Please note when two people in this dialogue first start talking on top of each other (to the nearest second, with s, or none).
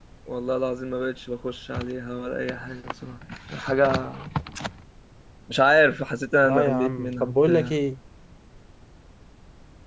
6 s